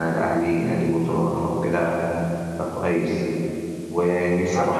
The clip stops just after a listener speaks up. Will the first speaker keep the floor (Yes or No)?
Yes